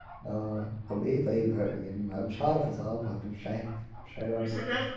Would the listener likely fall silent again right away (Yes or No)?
No